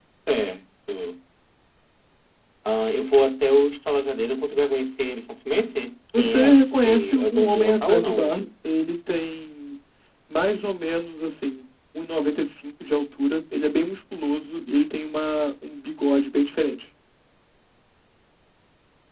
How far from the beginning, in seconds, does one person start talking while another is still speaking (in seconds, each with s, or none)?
6.1 s